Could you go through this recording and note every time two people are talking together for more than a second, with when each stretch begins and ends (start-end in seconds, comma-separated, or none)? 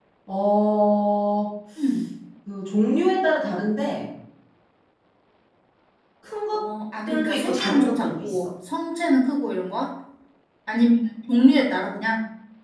7.1-8.5